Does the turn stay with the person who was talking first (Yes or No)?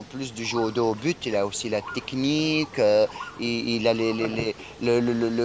Yes